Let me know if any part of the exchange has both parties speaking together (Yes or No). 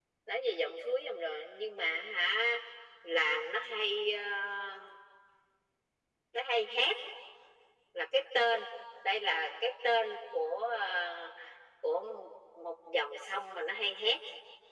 No